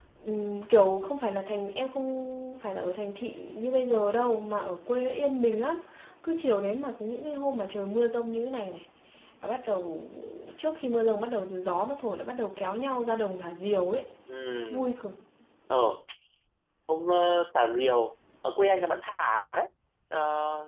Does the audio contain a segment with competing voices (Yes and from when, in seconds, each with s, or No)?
No